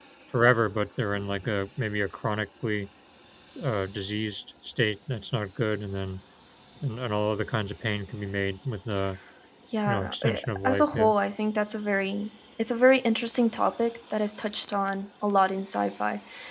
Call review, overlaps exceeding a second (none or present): present